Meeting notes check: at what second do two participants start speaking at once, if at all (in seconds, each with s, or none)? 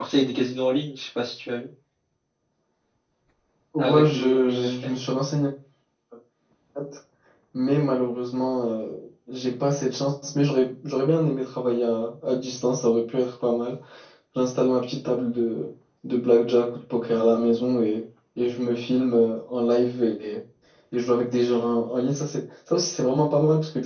3.8 s